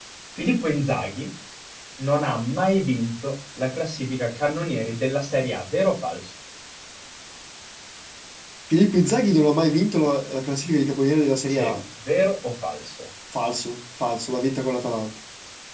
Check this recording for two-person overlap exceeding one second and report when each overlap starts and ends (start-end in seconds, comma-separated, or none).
none